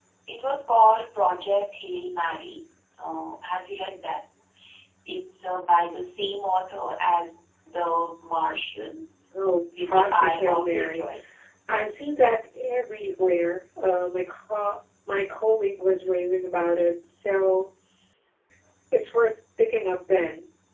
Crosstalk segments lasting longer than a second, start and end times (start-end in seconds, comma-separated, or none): 9.8-11.1